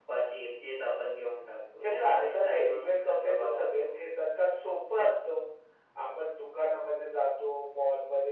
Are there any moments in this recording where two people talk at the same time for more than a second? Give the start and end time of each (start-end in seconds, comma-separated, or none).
1.8-3.9